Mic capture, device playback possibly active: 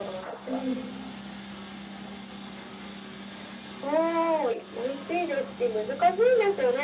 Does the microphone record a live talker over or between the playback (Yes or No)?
Yes